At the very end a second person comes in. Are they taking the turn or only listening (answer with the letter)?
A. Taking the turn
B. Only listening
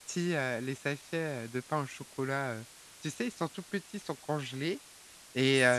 B